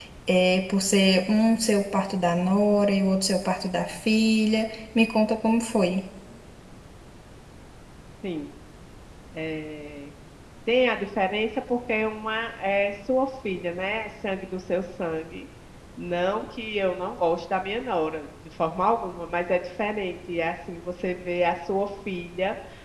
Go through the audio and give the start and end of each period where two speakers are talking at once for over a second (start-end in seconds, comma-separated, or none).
none